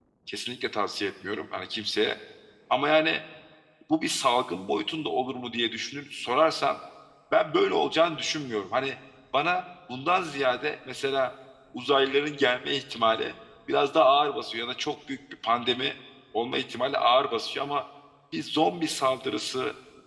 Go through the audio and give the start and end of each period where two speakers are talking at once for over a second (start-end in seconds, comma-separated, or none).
none